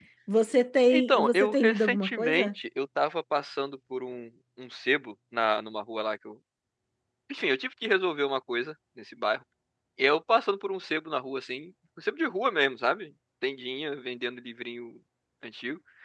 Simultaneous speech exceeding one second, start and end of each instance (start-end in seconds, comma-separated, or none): 0.9-2.5